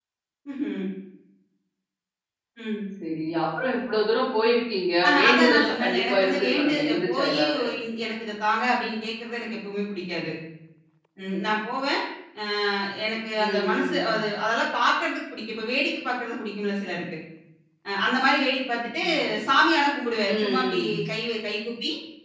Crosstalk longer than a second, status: present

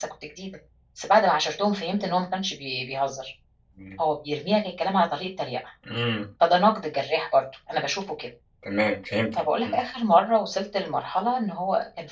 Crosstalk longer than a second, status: none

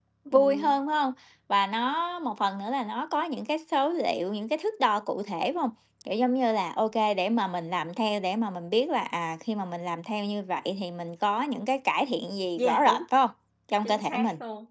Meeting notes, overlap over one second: none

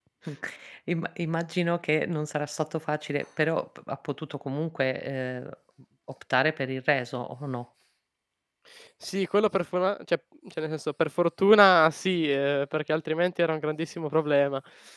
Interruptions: none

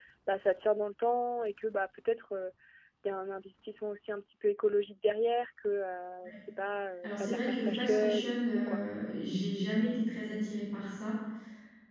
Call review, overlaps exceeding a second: present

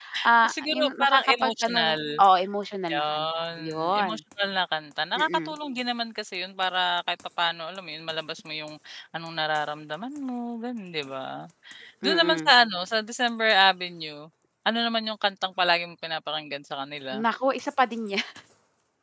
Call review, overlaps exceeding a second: present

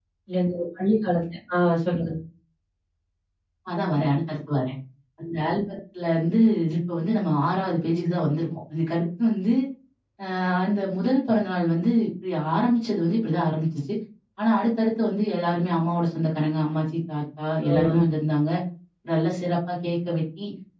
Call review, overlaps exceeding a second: none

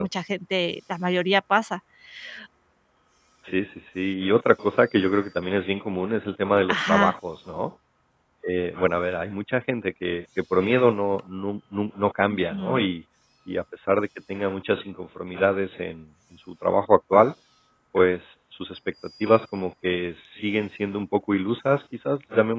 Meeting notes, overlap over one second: none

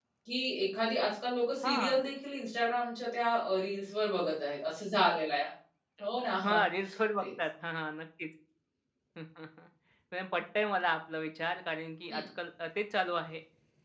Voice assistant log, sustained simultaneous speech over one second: none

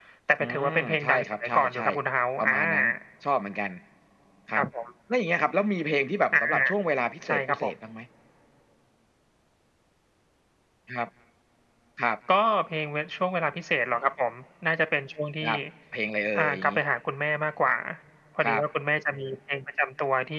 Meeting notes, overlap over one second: present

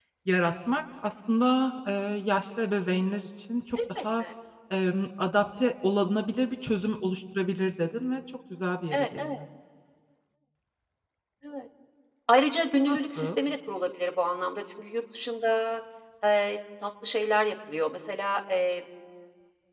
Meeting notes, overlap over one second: none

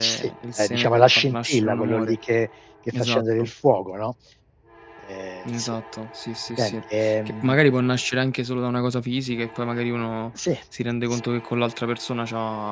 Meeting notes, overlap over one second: present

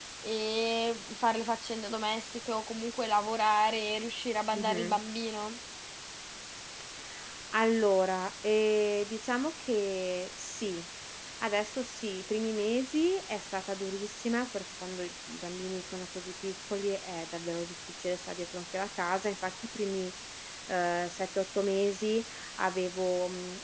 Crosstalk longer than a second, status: none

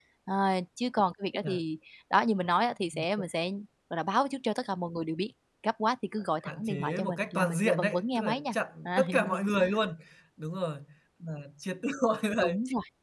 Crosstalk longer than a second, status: present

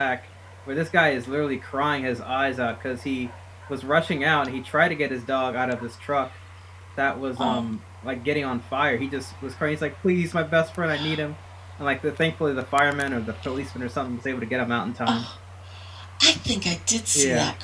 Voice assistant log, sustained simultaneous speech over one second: none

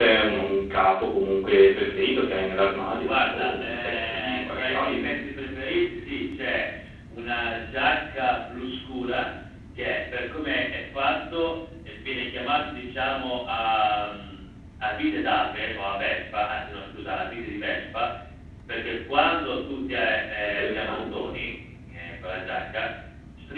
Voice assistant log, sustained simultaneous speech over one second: present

